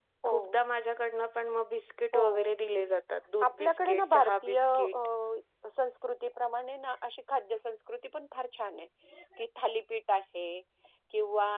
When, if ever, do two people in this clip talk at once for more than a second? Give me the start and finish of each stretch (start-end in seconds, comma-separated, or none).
3.5-5.0